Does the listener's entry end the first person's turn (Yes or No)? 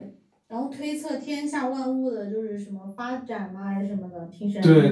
Yes